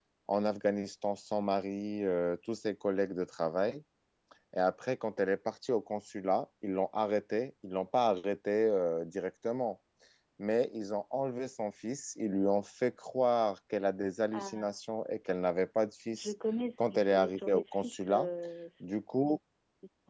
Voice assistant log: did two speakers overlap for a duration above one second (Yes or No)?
Yes